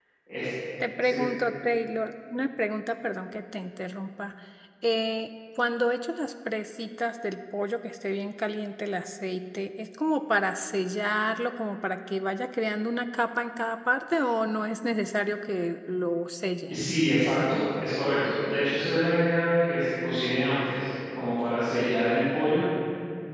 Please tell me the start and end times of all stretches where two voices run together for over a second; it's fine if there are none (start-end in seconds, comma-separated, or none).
none